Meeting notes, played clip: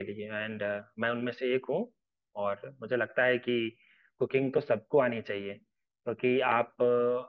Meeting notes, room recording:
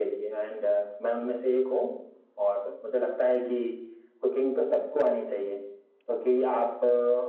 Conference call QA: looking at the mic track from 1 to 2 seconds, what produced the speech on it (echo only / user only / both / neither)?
echo only